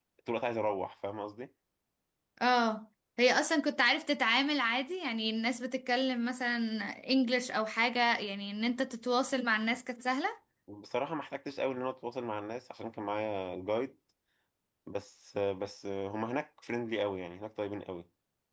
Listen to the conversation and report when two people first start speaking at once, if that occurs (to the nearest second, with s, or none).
none